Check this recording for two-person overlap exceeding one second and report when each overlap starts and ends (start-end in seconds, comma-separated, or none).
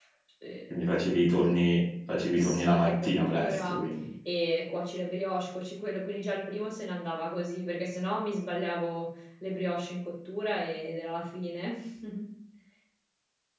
2.4-3.8